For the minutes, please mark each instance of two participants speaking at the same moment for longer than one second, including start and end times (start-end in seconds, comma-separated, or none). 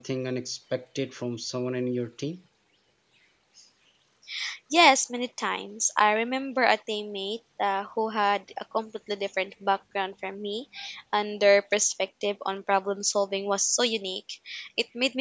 none